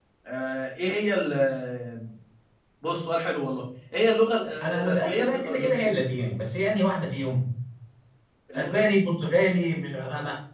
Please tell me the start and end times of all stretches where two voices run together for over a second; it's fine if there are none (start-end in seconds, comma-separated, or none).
4.6-5.9